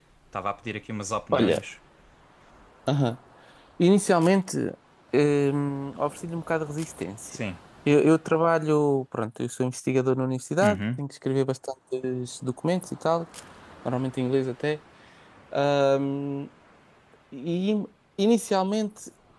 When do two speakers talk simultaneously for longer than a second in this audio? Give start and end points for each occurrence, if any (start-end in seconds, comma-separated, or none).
none